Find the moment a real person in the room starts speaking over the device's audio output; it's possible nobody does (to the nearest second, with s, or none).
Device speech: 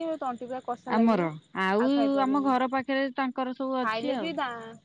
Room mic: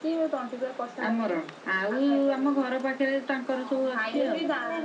4 s